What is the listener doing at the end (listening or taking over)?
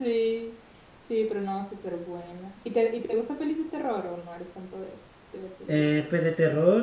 taking over